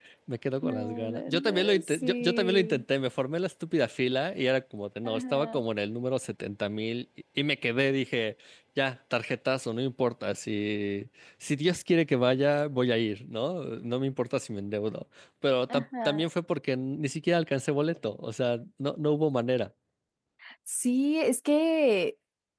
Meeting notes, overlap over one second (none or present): present